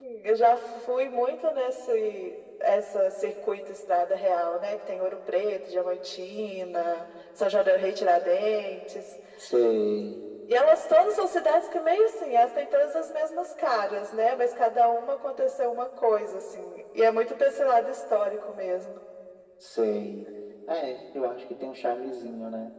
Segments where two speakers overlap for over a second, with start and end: none

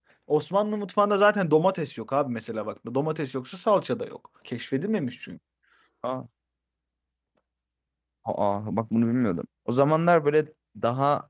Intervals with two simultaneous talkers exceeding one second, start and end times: none

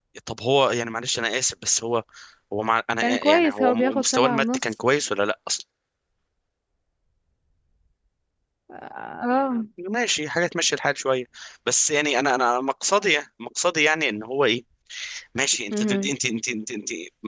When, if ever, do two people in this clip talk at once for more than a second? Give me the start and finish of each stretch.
3.0-4.6

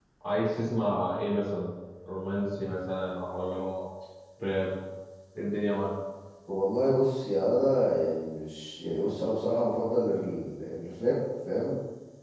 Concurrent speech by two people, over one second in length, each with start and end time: none

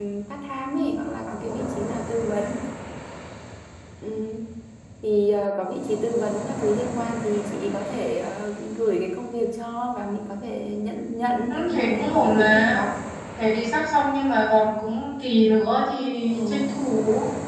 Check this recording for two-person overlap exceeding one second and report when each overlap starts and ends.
11.5-12.8

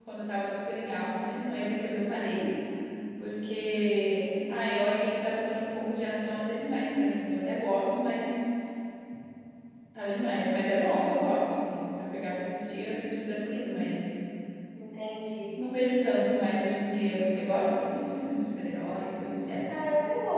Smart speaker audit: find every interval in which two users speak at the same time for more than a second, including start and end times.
none

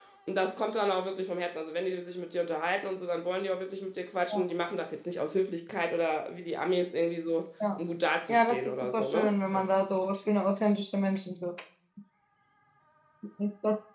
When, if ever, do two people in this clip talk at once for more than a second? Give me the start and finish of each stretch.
8.3-9.7

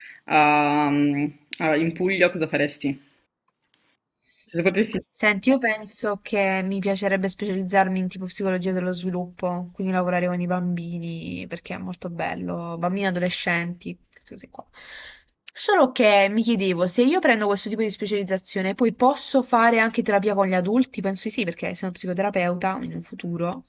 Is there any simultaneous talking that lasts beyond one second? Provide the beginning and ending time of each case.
none

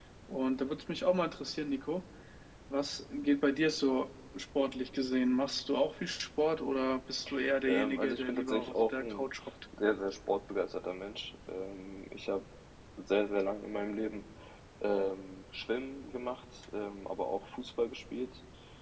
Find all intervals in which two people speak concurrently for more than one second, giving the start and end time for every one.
7.7-9.2

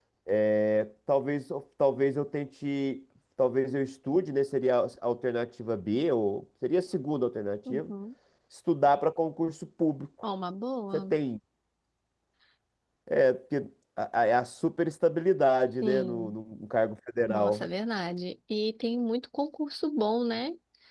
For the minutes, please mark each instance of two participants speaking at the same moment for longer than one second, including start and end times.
none

